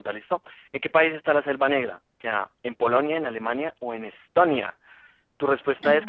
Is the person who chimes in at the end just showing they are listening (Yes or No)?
No